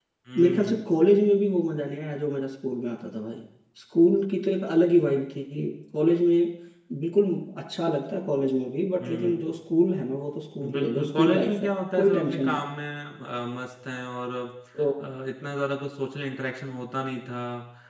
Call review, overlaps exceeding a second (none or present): present